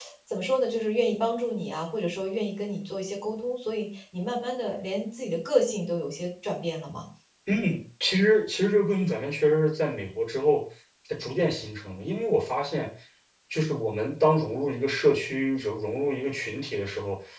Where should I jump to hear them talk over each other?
none

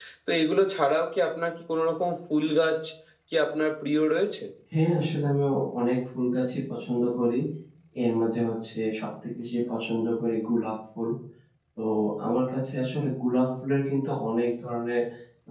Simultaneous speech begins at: none

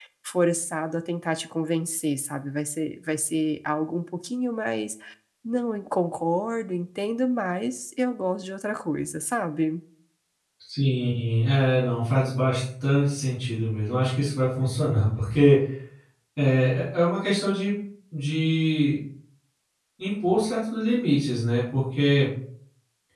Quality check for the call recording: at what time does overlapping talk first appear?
none

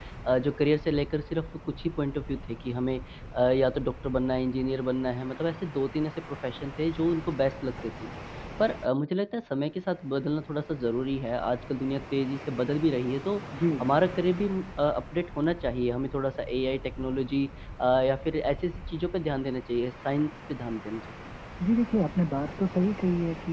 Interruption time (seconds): none

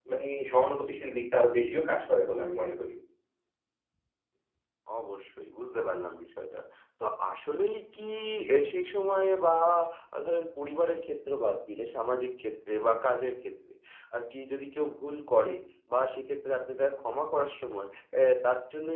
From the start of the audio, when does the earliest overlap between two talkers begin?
none

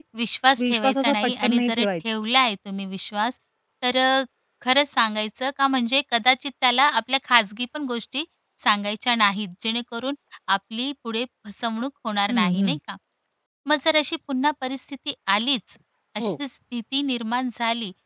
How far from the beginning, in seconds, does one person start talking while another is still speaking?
0.6 s

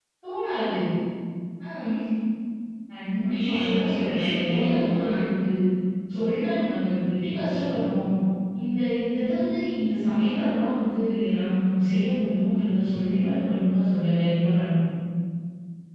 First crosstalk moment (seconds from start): 3.2 s

